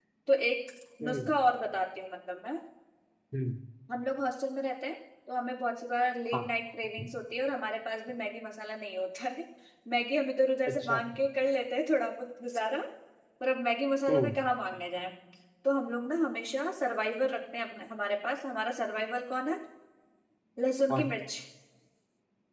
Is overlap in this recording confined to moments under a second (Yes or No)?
Yes